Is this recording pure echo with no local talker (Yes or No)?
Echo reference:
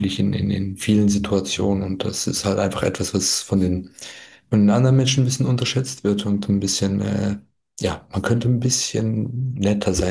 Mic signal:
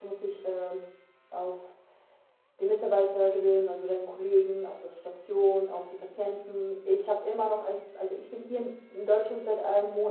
No